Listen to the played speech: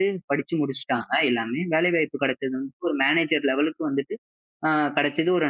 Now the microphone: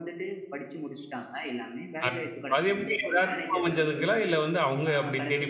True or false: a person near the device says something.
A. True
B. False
A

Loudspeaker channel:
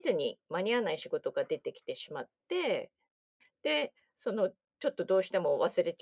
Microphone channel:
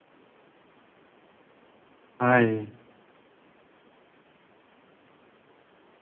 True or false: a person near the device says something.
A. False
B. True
B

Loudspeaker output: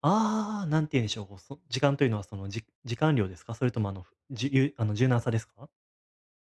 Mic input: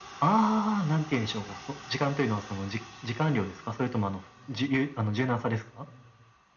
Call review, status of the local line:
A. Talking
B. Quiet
B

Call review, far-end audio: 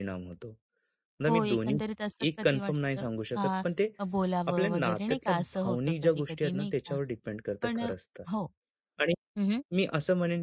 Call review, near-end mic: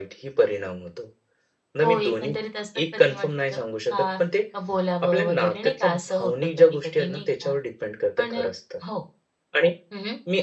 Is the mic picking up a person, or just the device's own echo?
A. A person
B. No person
B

